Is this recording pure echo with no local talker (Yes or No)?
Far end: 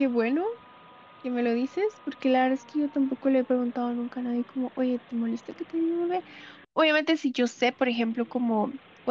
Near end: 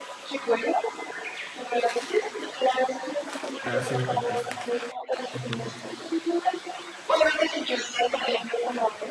No